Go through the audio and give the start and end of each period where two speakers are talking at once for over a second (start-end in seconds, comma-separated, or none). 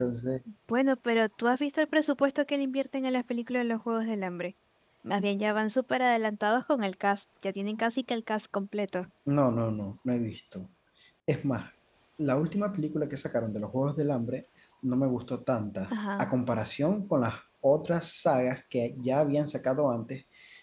none